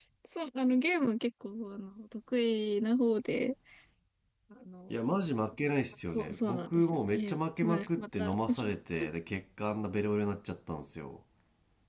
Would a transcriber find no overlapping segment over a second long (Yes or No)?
No